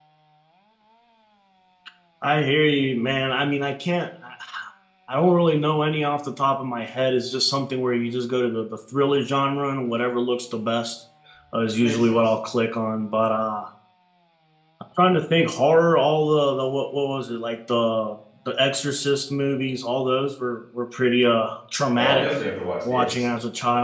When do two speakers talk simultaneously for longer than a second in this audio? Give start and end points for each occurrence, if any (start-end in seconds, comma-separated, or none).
none